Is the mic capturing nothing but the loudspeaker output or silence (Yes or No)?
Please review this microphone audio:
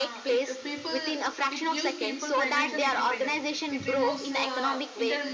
No